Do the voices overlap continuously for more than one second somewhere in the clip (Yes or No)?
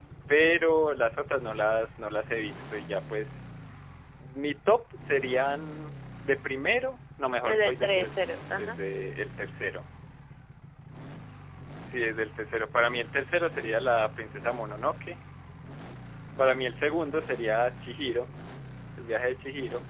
Yes